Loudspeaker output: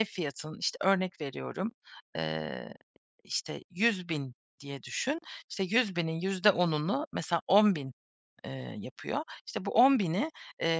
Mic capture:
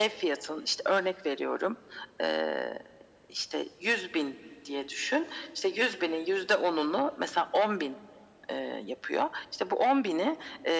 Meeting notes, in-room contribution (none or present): none